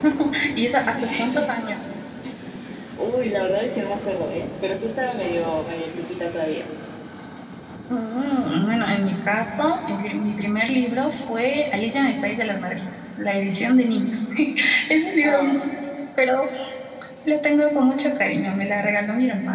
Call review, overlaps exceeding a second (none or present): none